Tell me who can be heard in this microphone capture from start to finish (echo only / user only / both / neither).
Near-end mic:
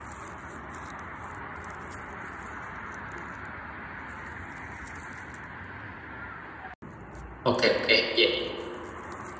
user only